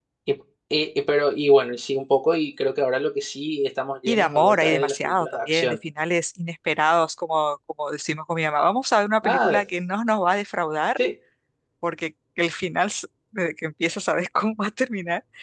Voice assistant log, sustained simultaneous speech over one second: present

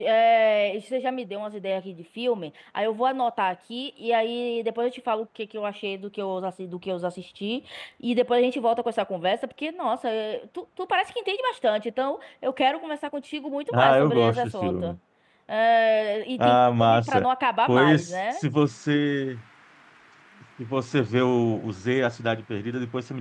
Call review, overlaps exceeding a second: present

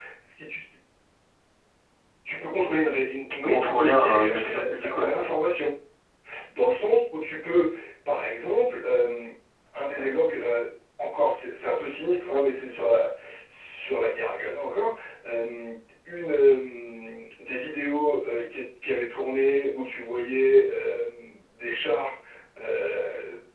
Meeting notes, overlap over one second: present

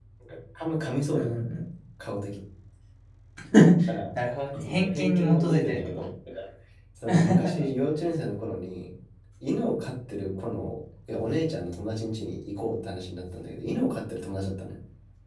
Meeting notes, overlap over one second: present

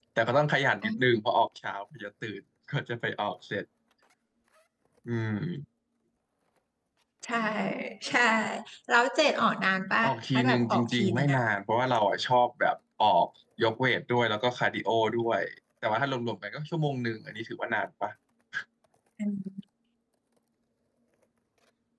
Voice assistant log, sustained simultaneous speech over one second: present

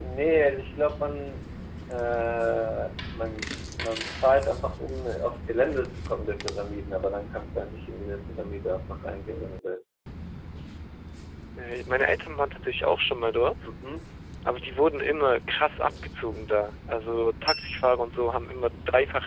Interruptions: none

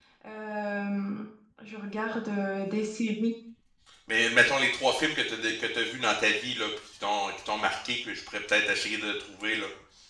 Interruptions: none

